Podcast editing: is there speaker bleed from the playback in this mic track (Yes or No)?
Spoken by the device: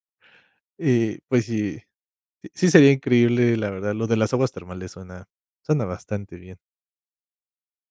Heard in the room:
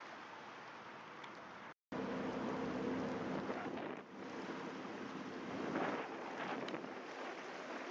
No